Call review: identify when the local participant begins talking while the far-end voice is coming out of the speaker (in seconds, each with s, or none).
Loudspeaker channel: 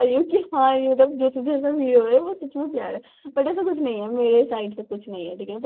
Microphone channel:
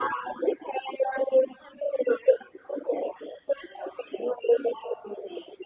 none